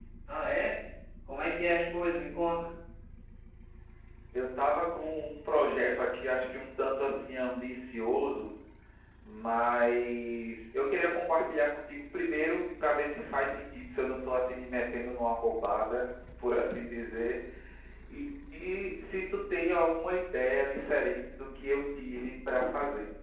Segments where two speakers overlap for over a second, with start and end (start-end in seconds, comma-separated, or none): none